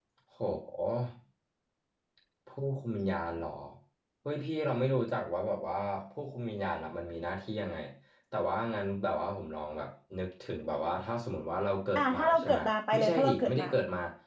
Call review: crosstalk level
present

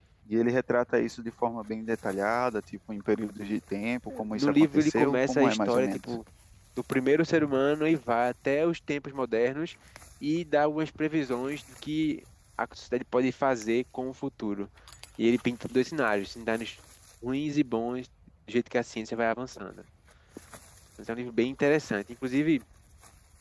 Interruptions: present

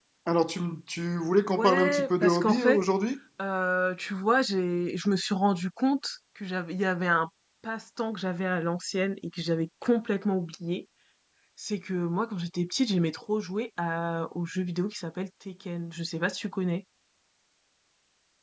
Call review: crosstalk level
present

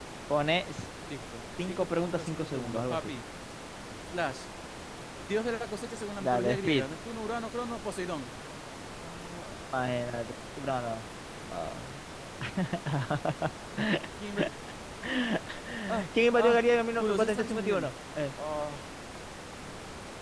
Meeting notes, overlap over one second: present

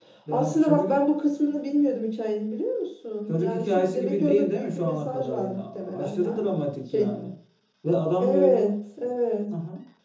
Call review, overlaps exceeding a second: present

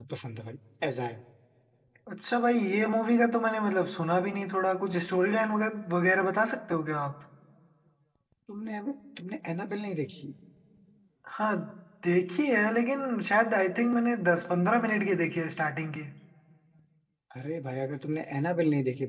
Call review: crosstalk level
none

